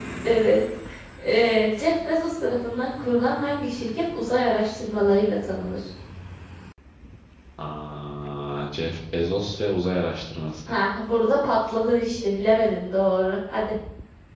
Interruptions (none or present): none